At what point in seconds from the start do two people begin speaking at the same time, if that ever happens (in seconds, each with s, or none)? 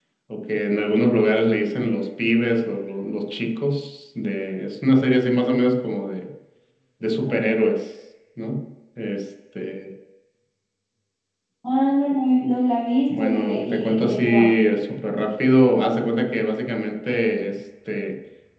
13.1 s